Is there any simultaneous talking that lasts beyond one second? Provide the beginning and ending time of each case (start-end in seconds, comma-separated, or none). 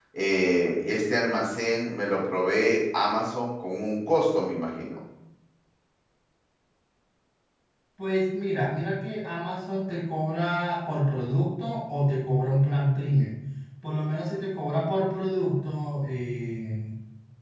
none